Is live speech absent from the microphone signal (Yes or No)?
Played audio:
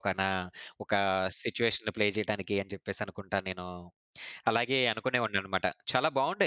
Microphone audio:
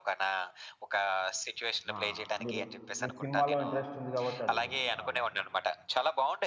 No